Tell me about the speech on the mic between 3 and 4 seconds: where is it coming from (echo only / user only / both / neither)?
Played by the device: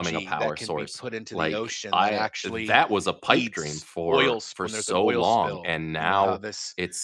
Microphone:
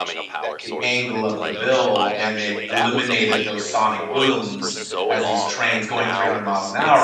both